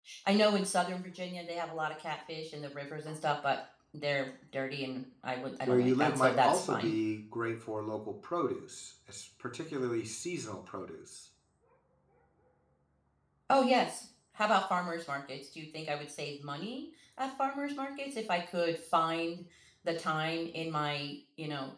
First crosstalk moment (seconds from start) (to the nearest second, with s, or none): 6 s